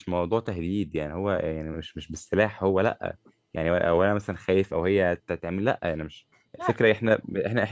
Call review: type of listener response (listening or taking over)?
listening